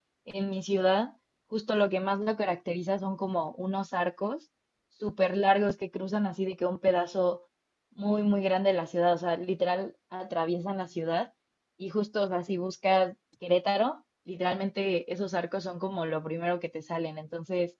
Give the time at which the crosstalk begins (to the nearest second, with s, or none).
none